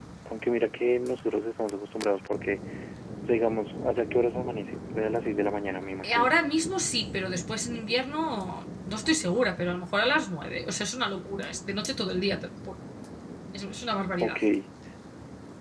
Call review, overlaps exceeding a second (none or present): none